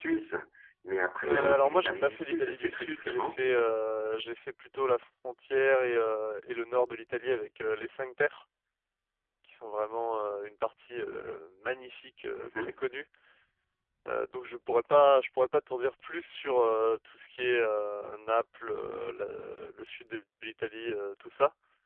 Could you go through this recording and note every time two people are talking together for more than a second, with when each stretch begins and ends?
1.2-3.4

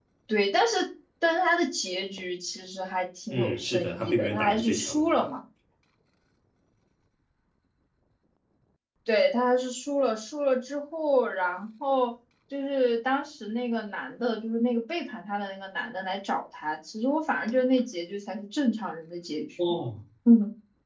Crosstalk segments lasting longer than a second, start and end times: 3.3-5.3

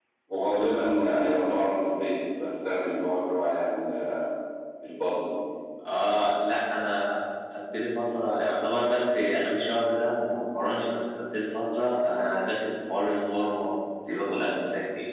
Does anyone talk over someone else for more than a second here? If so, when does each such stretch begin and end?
none

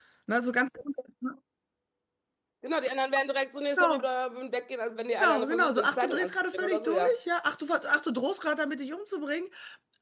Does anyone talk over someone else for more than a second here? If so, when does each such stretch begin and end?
5.5-7.1

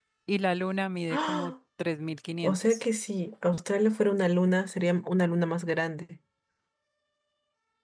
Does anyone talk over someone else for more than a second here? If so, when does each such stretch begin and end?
none

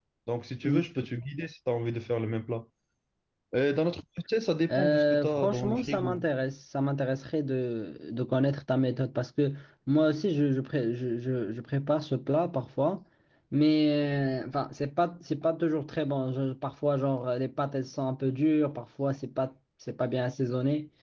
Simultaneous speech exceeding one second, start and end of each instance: 4.7-6.3

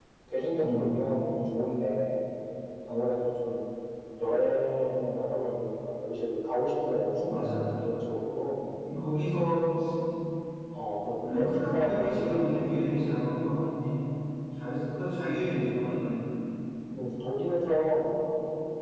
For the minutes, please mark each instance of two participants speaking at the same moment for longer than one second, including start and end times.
11.2-12.6

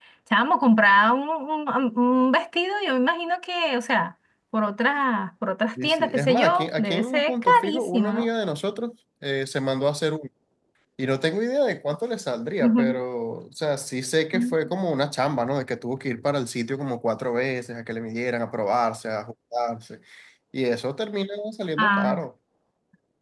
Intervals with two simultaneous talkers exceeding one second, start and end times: 5.8-8.3

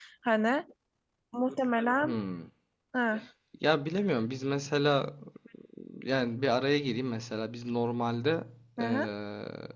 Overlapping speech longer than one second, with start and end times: none

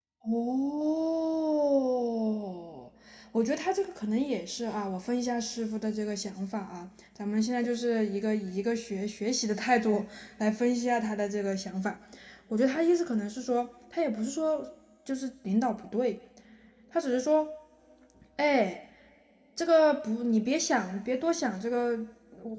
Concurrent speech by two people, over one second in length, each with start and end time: none

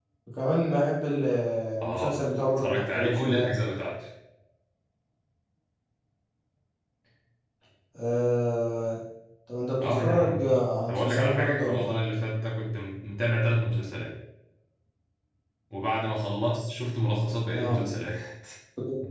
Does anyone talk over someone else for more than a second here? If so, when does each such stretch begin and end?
1.8-3.5, 9.8-11.9

